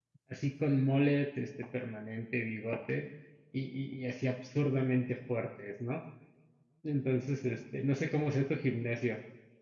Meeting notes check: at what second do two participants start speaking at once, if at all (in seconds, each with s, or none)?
none